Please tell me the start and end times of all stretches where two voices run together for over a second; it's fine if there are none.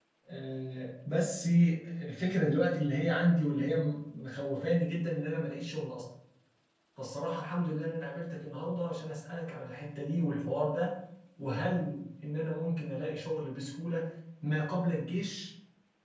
none

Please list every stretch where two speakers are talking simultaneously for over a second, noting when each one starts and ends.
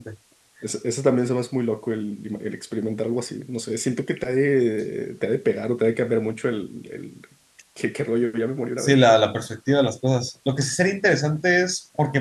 none

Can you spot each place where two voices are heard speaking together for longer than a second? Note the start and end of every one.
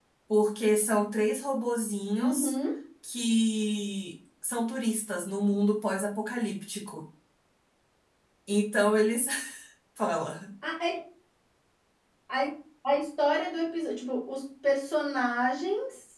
none

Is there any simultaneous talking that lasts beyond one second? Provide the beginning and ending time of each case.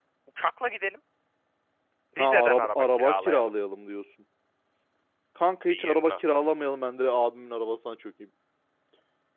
2.2-3.5

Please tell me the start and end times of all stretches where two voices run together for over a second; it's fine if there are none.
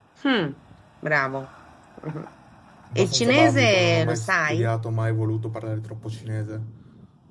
3.0-4.7

